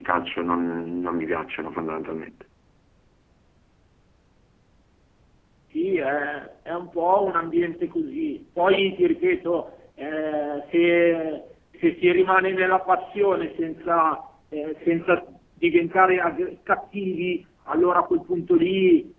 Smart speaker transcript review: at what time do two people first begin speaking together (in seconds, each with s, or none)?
none